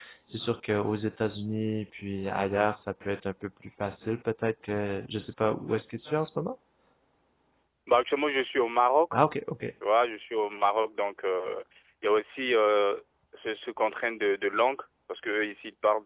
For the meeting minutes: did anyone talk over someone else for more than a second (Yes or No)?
No